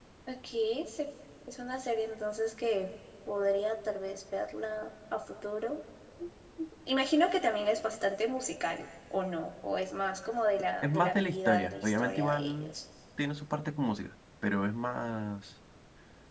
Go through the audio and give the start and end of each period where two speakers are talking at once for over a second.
10.8-12.7

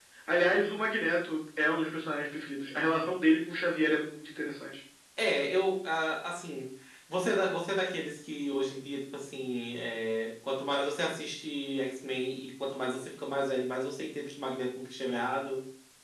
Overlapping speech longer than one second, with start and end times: none

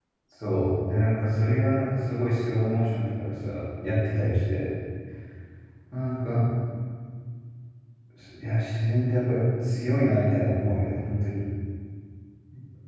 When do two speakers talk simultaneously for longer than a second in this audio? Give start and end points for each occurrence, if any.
none

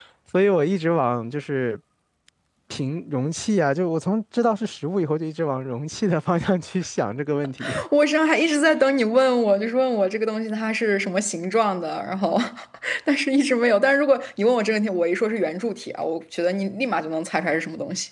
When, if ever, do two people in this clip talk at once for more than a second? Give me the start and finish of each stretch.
none

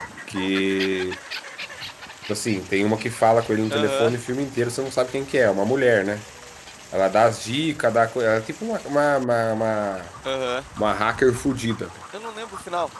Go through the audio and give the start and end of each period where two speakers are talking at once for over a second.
none

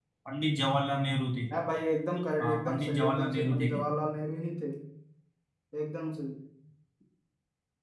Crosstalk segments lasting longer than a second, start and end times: 2.4-3.8

